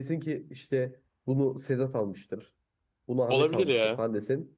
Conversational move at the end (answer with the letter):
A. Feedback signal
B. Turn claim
A